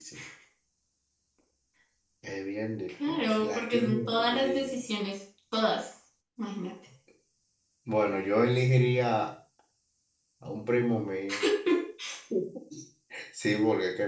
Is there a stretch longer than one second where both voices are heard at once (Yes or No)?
Yes